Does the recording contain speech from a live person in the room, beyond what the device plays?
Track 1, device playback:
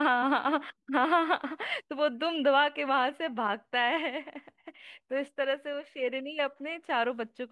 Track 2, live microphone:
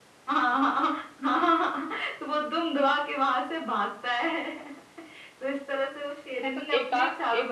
Yes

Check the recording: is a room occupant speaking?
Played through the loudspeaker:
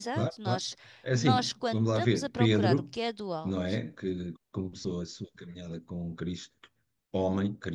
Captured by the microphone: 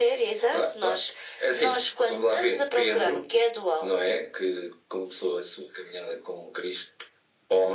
No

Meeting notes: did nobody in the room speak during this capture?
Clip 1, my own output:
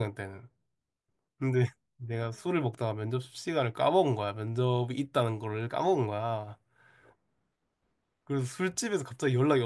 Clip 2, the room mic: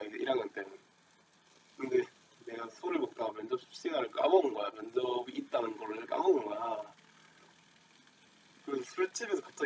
Yes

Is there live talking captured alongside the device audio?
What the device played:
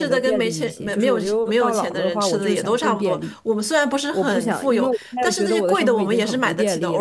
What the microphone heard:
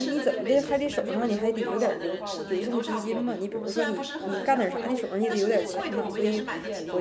Yes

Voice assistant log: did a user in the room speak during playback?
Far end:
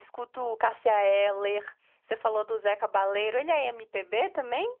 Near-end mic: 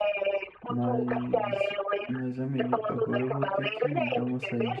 Yes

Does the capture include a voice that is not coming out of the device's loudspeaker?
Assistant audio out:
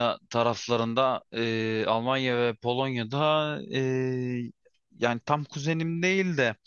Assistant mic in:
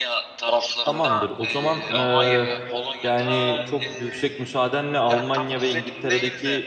Yes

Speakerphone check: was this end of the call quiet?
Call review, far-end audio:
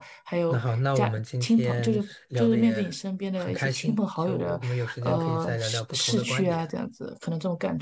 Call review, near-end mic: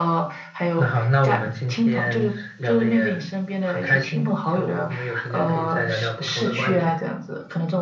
No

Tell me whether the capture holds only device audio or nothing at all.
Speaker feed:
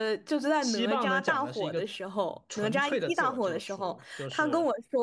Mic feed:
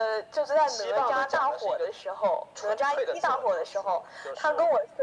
Yes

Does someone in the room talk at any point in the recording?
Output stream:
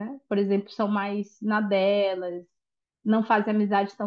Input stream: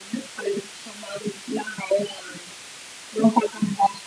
No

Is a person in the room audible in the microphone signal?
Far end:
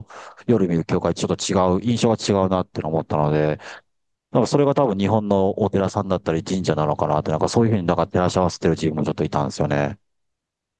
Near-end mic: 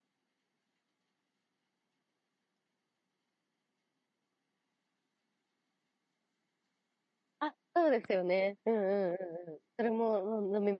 Yes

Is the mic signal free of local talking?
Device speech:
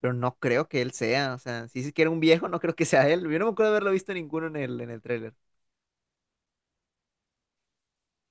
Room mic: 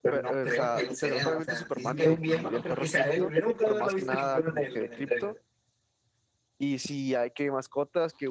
No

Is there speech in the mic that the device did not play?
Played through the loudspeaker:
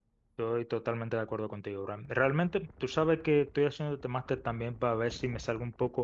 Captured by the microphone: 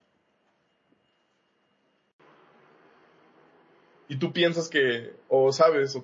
Yes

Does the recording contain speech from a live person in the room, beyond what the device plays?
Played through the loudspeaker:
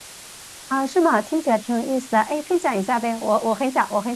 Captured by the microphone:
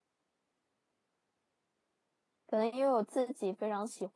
Yes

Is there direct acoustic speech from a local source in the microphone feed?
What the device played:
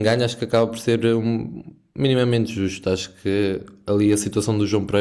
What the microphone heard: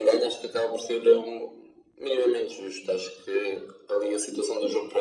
No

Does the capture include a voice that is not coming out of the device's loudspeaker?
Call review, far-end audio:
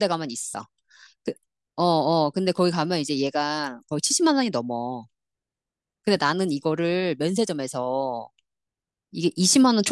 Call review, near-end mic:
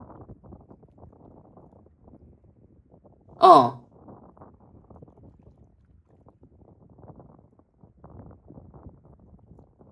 Yes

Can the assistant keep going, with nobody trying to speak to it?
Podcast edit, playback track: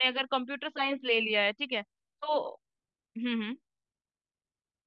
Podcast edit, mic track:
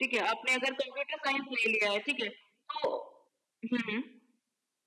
Yes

